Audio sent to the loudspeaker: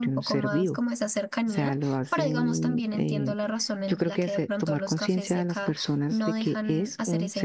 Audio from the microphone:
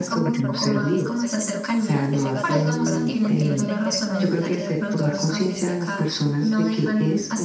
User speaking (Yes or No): Yes